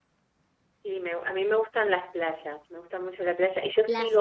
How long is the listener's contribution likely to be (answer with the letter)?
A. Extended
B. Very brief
B